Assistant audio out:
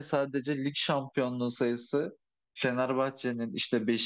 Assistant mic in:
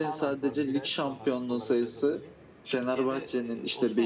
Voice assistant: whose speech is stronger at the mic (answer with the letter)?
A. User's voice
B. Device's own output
B